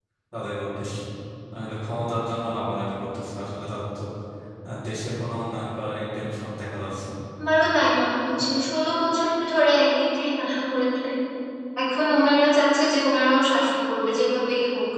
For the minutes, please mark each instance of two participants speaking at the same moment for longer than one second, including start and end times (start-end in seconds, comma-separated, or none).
none